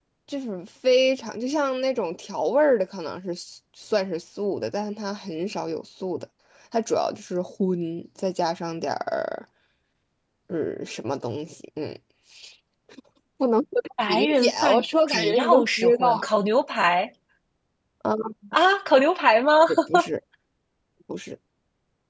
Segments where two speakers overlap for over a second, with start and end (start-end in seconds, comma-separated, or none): 14.1-16.2